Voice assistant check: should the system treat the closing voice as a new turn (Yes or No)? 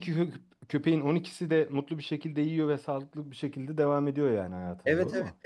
Yes